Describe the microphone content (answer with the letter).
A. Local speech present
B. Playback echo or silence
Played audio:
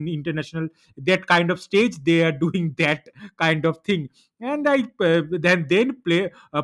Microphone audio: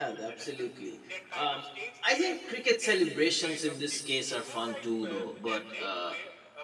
A